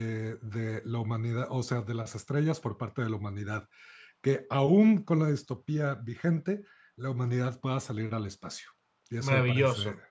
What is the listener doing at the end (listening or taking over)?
taking over